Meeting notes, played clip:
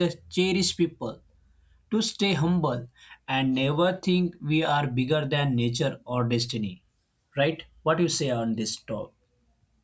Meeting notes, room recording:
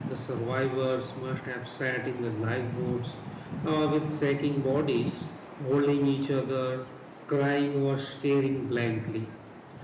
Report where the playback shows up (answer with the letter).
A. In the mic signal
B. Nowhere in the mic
B